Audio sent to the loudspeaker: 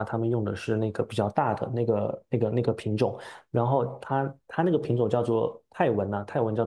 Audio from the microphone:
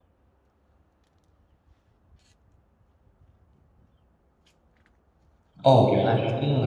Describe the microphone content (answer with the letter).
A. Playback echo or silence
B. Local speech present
B